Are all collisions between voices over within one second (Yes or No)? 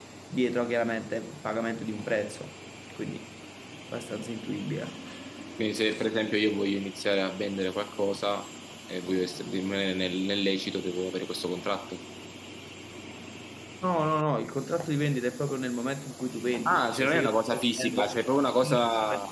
No